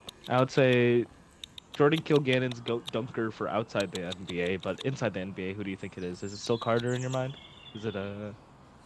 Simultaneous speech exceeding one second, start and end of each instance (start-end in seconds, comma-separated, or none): none